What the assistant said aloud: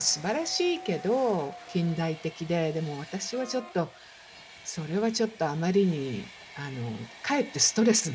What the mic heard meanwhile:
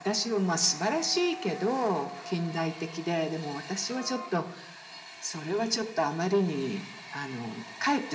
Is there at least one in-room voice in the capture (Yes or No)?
No